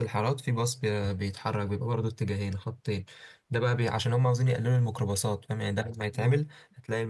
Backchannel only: Yes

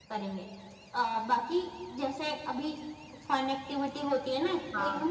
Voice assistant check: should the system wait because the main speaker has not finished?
Yes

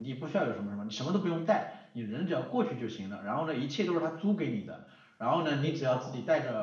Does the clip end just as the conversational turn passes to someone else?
No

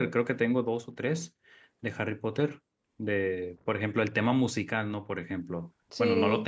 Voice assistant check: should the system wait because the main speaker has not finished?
Yes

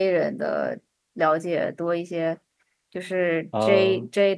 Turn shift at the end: No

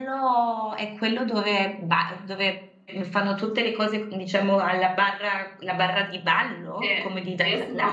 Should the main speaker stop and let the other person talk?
Yes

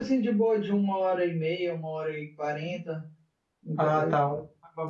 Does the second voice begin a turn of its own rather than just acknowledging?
Yes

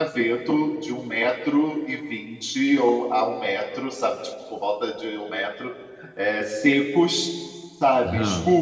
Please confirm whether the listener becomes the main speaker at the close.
No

